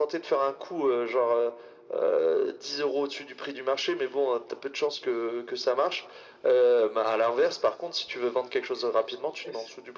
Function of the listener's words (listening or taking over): taking over